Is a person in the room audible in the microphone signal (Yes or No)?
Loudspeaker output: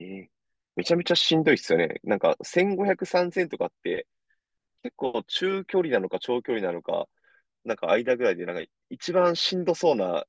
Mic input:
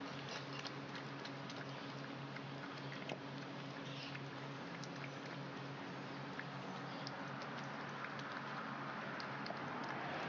No